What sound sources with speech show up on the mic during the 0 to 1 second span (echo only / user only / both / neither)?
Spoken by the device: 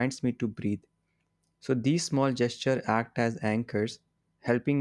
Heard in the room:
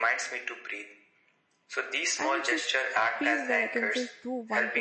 echo only